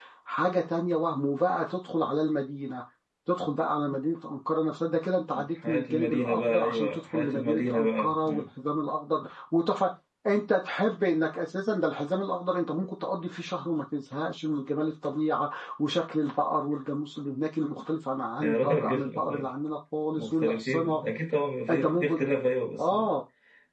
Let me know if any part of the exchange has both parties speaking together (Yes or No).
Yes